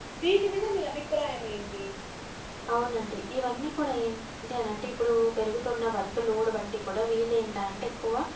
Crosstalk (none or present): none